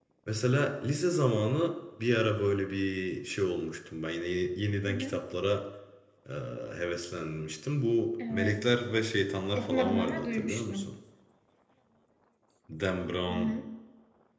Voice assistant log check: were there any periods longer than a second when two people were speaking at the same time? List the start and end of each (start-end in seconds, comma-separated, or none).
9.6-10.9